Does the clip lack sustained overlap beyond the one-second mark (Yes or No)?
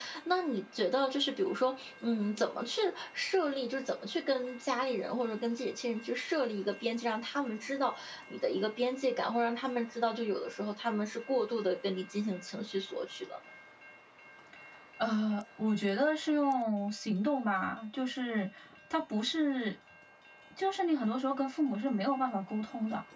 Yes